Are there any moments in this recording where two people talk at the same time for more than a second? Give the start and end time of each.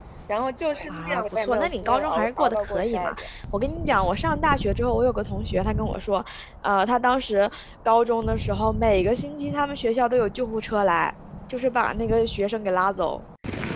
0.9-3.3

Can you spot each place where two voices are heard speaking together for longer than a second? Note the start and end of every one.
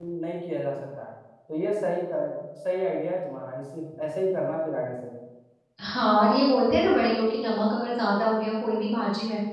none

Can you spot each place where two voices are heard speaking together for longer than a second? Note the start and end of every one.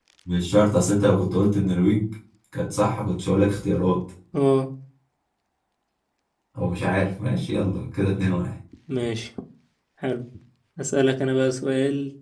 none

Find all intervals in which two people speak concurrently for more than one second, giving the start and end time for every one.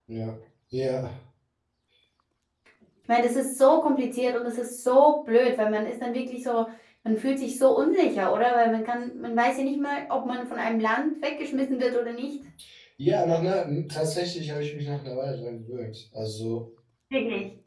none

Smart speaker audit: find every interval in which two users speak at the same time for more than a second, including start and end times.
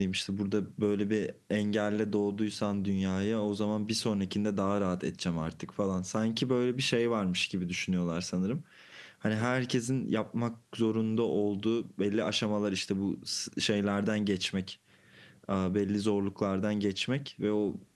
none

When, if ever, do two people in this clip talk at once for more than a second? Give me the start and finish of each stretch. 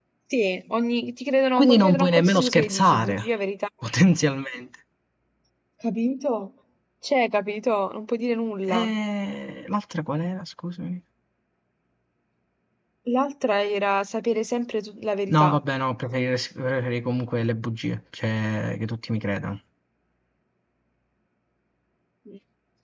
1.6-3.3

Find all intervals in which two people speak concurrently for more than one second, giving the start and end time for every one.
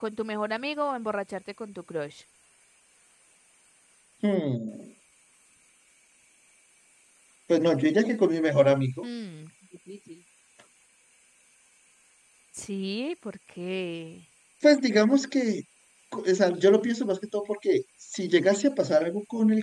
none

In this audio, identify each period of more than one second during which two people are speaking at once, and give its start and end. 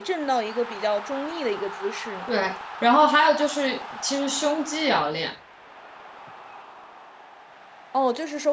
none

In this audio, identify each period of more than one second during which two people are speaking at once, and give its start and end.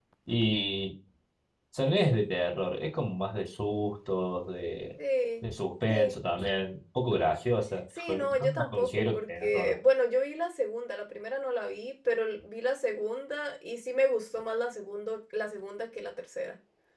8.0-9.8

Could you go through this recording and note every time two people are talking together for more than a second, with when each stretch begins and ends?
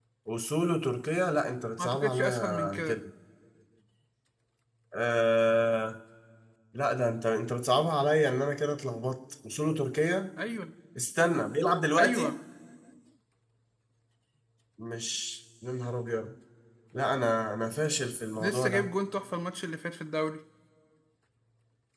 1.8-3.0

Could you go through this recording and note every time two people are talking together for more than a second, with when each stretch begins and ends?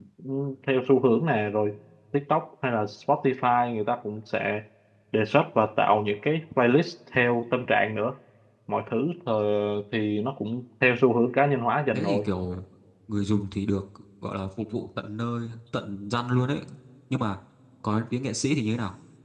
none

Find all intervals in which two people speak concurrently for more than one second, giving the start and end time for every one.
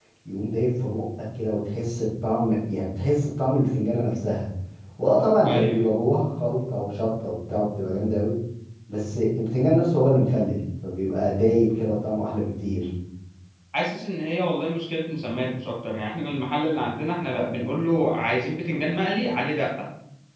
none

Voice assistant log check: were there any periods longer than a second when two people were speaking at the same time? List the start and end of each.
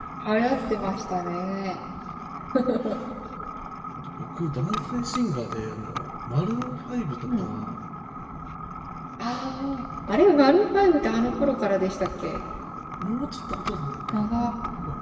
none

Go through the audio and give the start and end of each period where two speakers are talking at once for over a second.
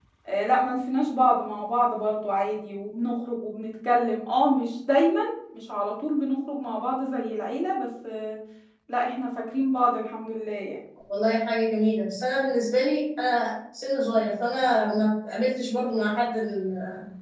none

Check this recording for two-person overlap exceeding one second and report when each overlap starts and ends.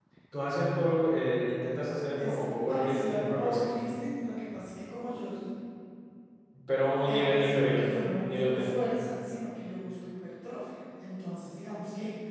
2.2-3.7, 7.1-8.8

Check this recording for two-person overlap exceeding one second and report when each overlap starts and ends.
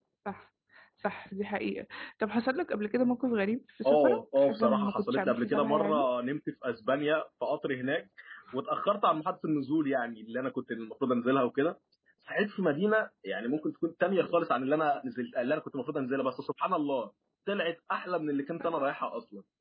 3.8-6.1

